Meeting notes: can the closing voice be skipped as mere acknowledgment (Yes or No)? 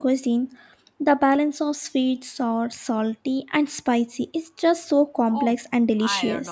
No